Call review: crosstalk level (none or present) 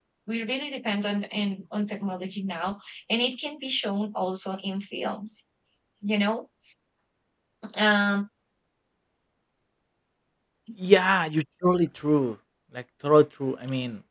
none